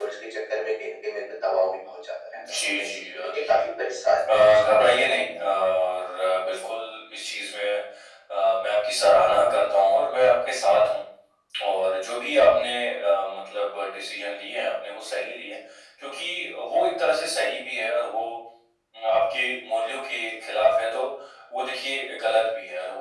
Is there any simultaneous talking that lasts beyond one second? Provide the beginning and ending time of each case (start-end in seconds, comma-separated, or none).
2.4-3.7